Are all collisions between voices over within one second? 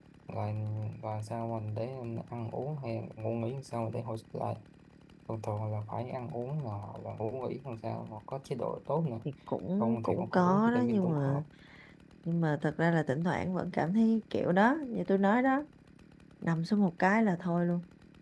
No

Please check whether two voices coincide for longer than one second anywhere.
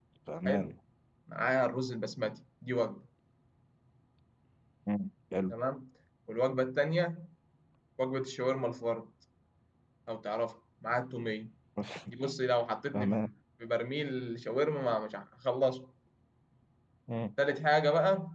No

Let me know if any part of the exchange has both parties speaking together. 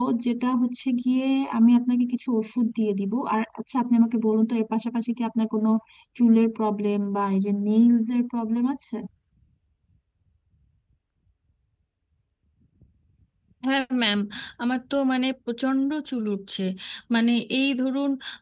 No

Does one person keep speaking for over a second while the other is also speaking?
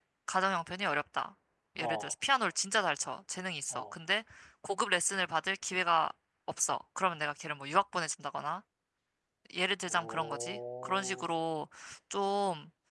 Yes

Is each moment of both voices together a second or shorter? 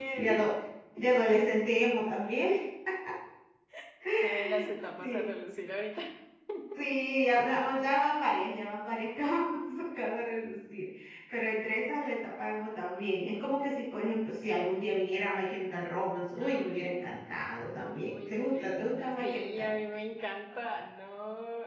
No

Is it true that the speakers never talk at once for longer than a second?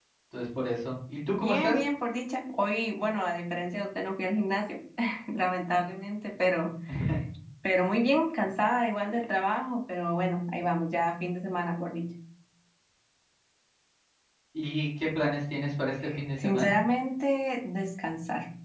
Yes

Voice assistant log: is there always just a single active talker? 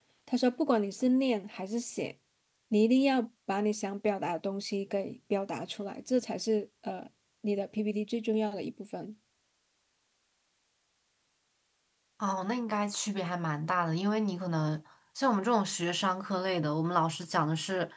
Yes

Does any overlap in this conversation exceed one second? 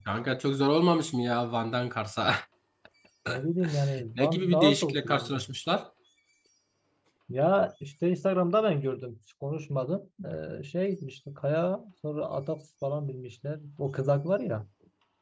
Yes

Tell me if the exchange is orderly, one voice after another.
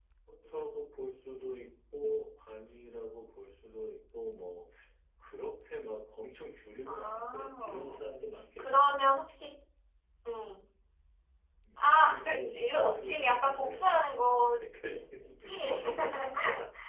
No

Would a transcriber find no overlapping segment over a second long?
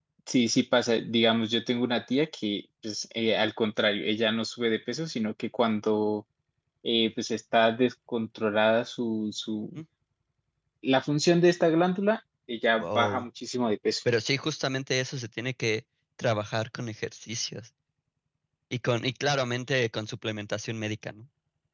Yes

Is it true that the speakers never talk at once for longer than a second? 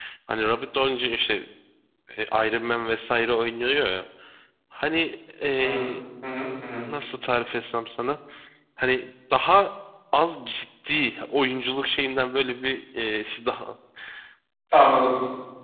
Yes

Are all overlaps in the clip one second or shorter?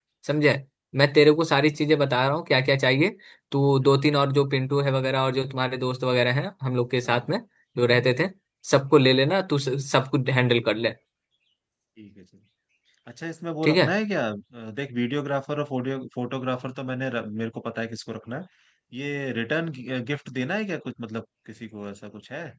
Yes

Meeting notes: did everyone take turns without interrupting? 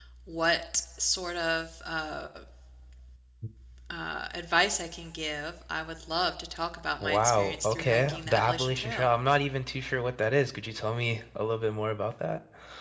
No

